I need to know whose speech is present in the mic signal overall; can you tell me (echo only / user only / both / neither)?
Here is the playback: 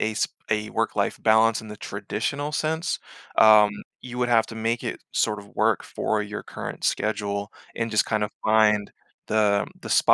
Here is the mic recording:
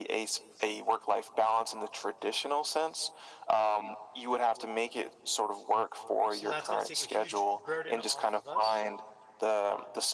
both